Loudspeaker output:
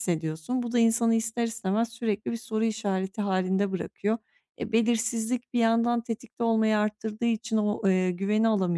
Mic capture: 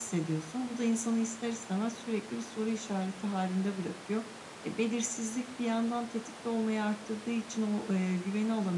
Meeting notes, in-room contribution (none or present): none